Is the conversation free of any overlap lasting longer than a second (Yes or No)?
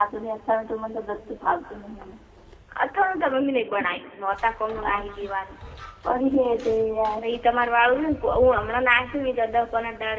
Yes